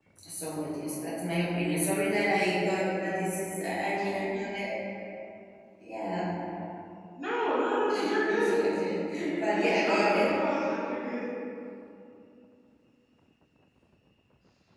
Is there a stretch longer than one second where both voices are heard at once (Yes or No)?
Yes